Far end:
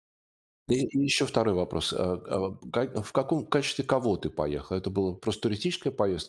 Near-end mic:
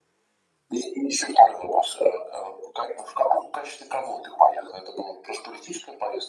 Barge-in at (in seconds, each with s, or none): none